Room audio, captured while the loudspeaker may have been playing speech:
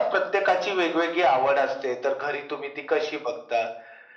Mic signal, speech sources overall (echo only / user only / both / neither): echo only